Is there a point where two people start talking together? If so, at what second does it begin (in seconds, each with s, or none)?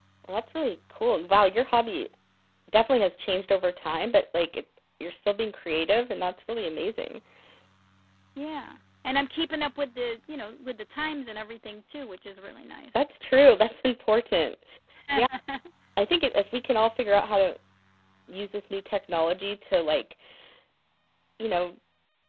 none